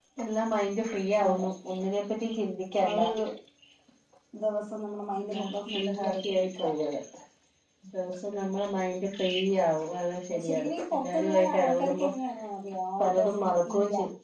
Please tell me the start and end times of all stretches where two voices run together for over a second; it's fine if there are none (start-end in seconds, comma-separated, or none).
5.2-6.6, 10.3-12.1